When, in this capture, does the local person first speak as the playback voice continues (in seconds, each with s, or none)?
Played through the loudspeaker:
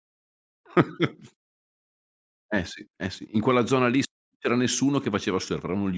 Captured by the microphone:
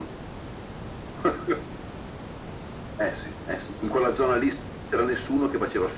none